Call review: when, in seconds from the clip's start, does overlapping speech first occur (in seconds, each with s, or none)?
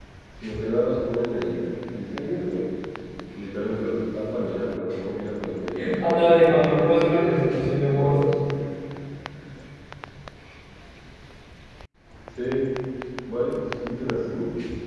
5.8 s